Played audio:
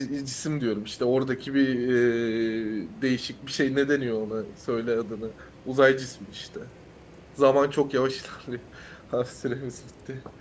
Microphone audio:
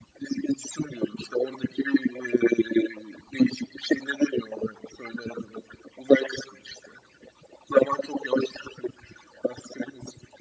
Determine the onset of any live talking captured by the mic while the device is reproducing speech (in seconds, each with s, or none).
none